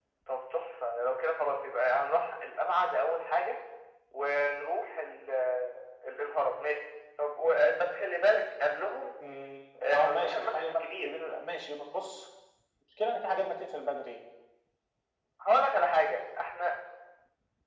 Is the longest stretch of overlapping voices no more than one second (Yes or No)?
No